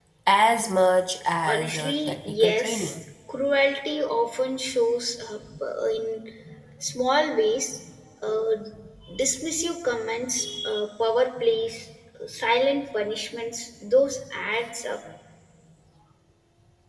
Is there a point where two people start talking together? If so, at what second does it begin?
1 s

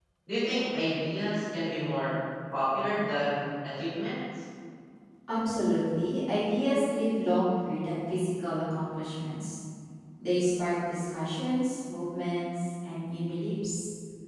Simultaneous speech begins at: none

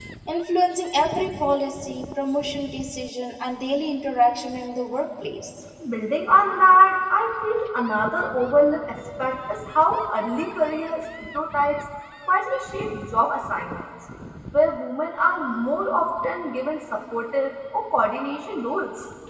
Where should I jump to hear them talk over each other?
none

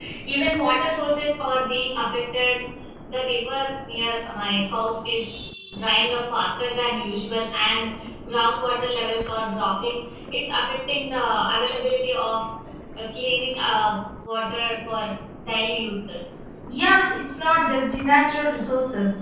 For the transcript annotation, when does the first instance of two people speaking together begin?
none

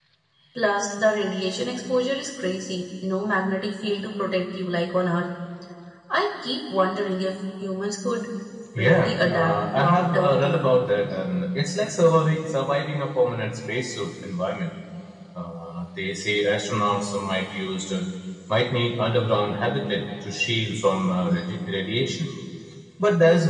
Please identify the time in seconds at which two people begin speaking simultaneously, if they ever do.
9 s

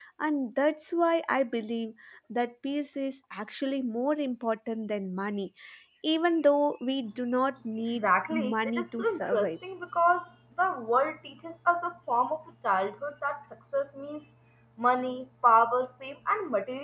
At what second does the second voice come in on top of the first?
8 s

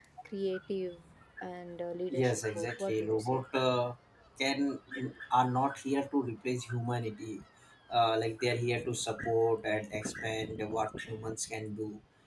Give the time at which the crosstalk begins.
2 s

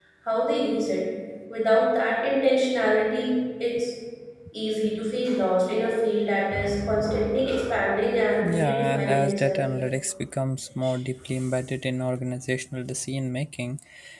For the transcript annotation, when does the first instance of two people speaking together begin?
8 s

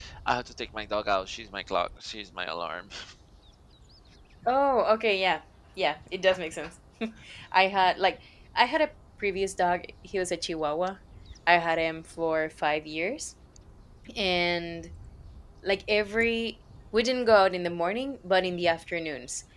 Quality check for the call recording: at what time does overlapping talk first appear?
none

